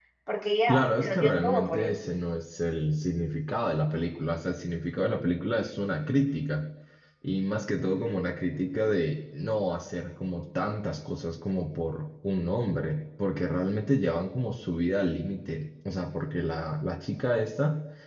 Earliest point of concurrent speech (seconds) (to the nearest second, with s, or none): 1 s